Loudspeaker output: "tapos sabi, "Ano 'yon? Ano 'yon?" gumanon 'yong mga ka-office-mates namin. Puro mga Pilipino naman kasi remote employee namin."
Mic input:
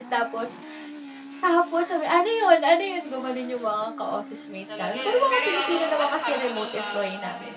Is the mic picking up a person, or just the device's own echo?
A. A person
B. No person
A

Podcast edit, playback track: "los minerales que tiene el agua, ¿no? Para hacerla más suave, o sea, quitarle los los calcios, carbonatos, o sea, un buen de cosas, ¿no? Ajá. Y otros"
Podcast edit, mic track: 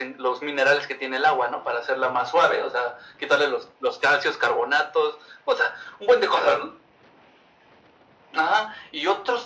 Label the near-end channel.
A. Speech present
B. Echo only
B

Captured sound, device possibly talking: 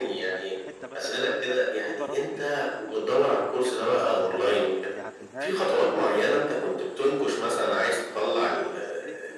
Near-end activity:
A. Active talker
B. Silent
A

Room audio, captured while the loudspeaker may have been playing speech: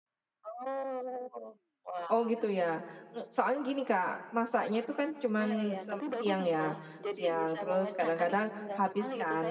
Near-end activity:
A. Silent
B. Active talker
B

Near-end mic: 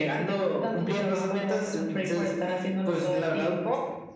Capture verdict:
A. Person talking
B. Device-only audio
B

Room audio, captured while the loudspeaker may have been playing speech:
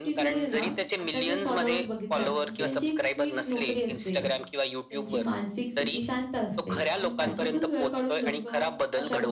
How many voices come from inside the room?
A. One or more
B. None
A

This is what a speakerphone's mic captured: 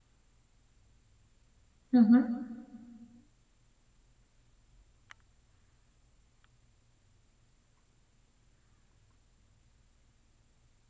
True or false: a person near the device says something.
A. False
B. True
B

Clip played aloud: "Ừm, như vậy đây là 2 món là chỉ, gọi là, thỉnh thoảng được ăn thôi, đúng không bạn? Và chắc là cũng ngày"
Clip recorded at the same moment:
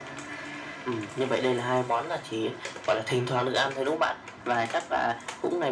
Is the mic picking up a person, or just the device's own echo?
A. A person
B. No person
B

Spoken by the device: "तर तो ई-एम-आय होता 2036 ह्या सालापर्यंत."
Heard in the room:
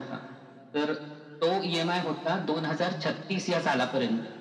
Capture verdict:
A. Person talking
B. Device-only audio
B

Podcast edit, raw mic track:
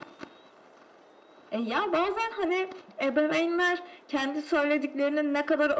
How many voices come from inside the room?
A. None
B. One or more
A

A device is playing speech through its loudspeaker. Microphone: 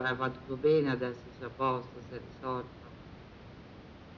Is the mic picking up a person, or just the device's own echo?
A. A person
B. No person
B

